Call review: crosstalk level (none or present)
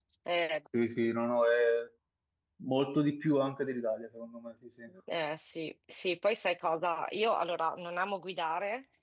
none